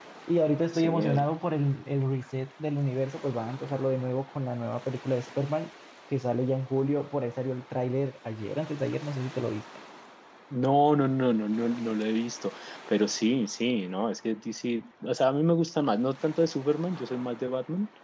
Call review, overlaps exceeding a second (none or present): none